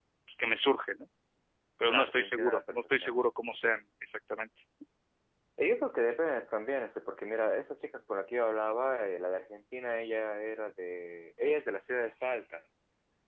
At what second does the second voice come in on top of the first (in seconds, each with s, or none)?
1.9 s